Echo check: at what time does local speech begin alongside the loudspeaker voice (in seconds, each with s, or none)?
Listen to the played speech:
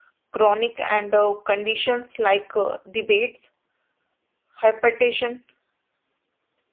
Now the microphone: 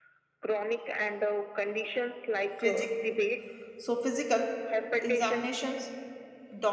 2.6 s